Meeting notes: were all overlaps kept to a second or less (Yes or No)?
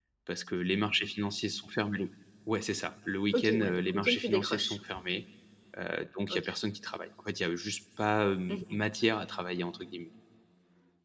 No